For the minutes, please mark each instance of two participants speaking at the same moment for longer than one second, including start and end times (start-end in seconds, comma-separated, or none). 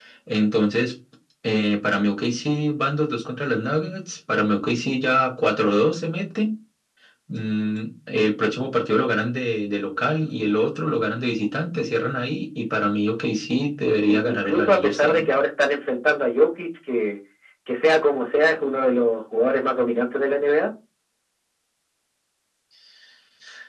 14.1-15.3